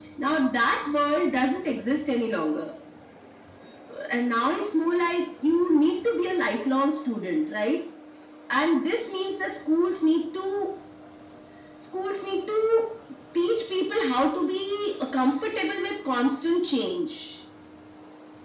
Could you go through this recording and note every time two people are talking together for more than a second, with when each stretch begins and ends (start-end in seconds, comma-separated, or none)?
none